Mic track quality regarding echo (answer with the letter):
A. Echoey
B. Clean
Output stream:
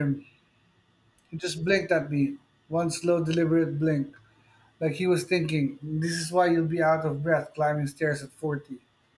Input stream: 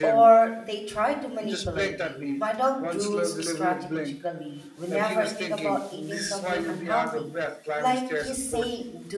A